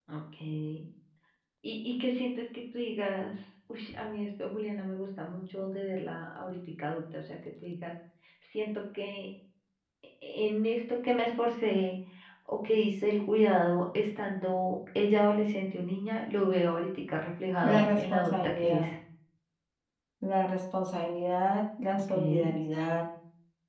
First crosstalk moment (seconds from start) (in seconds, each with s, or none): 17.6 s